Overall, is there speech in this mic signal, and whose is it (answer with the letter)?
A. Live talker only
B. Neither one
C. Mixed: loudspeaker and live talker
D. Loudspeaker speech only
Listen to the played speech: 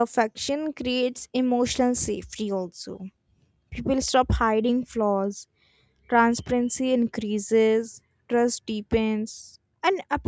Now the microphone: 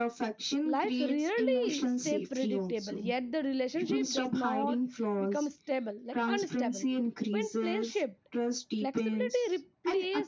C